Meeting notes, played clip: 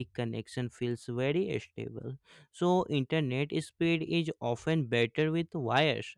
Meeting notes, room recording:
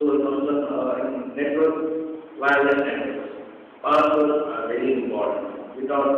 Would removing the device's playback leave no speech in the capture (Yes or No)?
No